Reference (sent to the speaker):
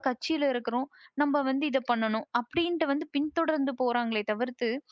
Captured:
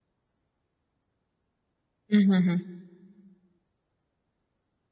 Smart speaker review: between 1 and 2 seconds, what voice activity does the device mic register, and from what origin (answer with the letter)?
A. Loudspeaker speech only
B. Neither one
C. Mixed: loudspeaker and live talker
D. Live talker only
B